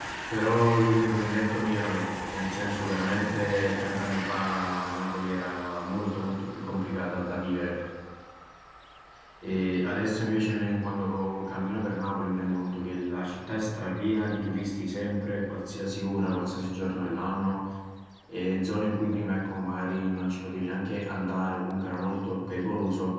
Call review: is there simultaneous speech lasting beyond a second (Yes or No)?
No